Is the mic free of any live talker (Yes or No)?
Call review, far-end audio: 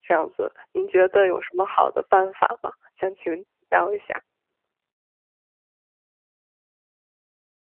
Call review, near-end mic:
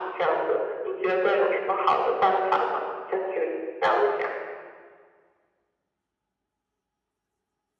Yes